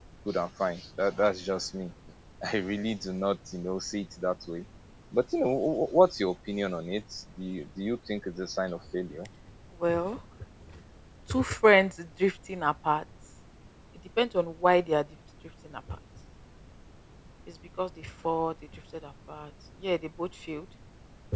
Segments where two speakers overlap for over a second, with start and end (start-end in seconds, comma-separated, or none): none